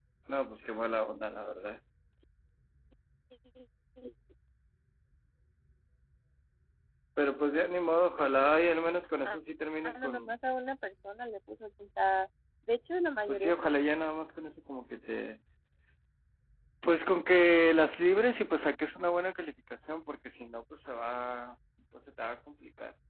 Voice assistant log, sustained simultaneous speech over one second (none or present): none